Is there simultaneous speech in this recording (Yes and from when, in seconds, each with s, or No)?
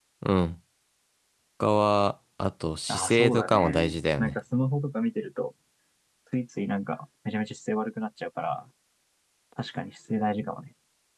Yes, from 2.9 s